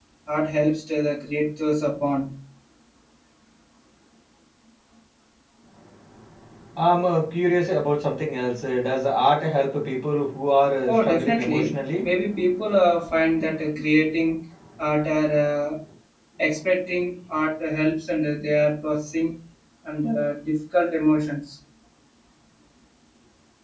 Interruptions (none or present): present